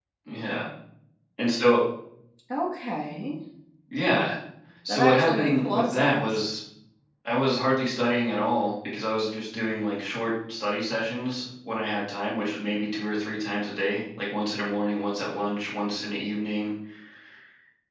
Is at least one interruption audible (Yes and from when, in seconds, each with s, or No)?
Yes, from 4.9 s